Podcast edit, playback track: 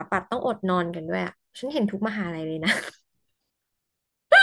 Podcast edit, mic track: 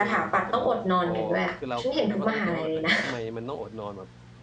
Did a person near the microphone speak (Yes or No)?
Yes